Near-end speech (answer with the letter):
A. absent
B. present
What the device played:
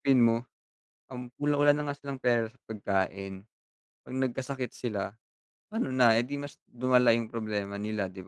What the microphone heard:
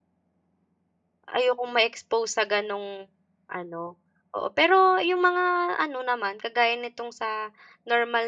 B